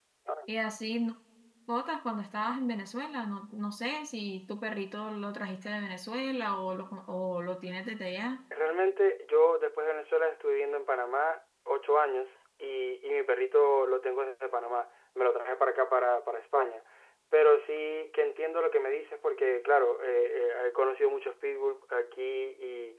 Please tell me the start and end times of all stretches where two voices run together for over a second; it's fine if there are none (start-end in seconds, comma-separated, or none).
none